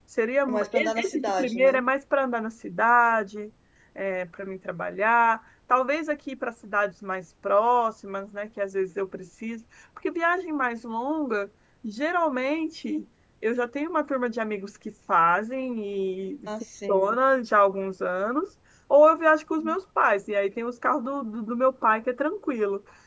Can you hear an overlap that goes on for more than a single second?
Yes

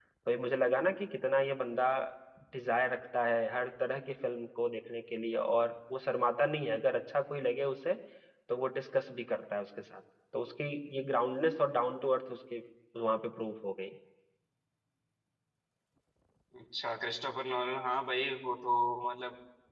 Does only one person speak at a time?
Yes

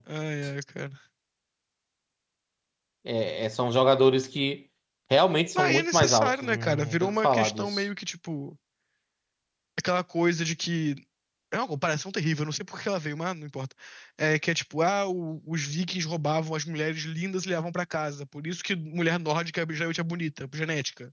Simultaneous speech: Yes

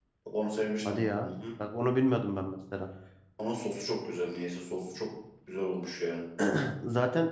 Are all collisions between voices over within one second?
Yes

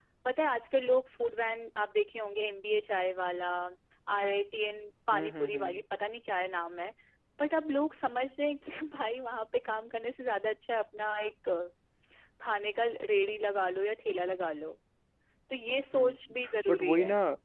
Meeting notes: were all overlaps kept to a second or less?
No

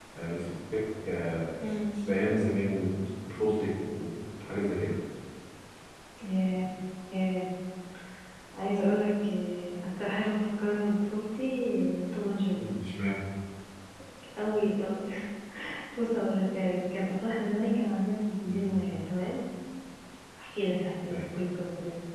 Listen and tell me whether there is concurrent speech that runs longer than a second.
No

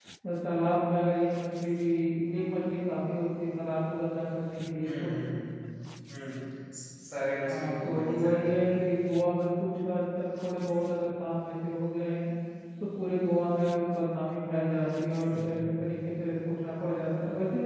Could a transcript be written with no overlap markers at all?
No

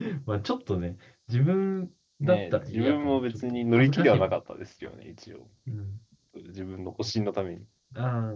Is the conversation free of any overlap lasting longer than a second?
No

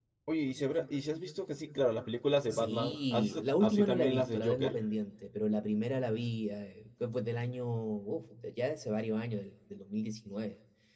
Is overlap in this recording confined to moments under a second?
No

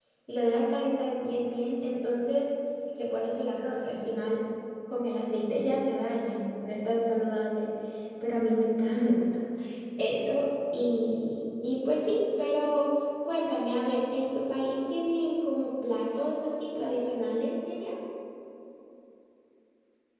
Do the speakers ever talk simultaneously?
No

